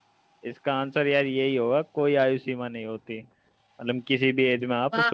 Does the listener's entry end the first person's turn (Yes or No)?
No